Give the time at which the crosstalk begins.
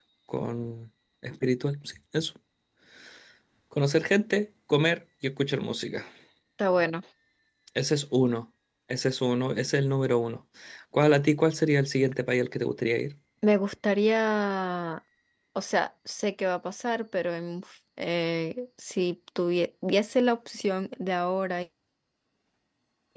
none

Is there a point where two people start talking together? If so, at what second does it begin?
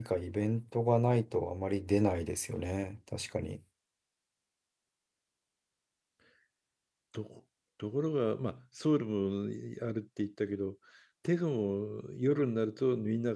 none

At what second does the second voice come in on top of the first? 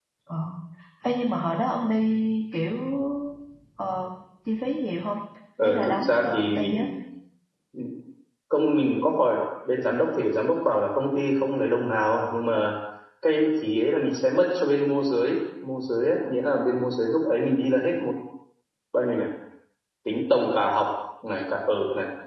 5.6 s

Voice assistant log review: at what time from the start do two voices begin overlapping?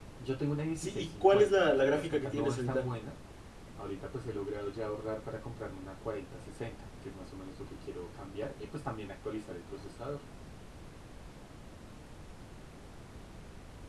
0.8 s

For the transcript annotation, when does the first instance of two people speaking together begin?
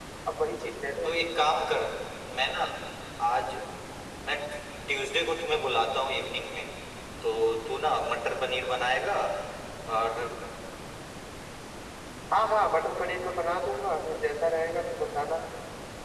none

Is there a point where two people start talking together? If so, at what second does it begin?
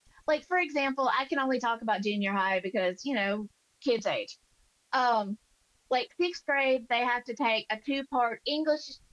none

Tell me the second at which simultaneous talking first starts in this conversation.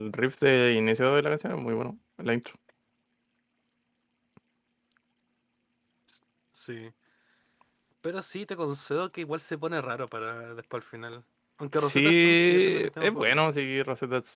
11.7 s

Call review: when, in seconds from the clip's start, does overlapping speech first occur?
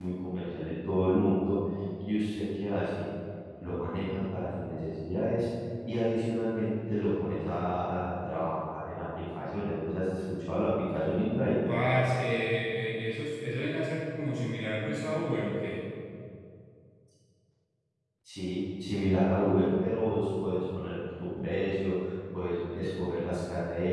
none

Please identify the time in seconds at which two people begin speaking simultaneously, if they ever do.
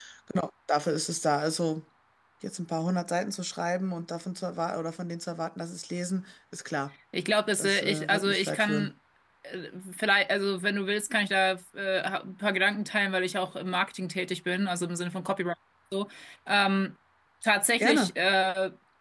7.6 s

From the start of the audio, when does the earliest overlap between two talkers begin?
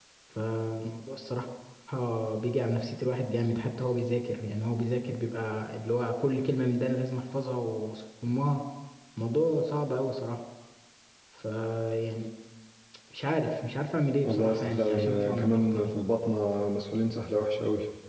14.2 s

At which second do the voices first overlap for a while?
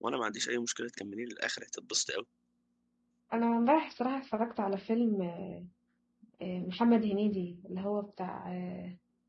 none

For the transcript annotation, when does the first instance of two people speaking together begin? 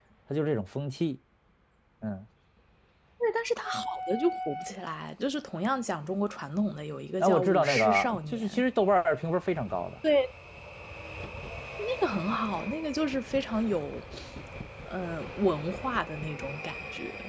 7.2 s

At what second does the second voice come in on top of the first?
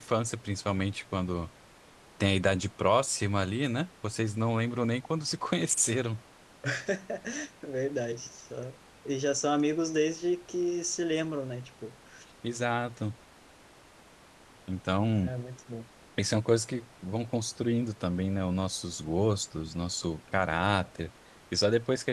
none

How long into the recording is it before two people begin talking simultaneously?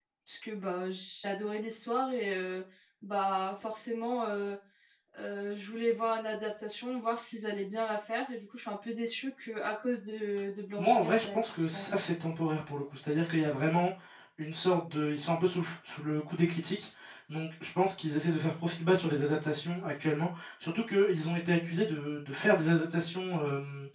10.8 s

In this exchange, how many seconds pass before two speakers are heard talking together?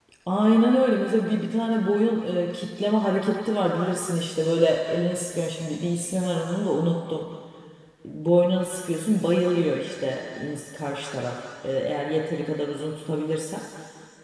none

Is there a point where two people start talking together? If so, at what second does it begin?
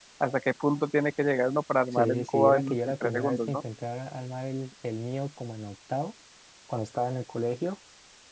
1.9 s

